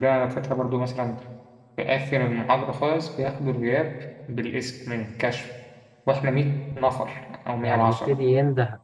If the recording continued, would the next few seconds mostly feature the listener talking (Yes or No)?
Yes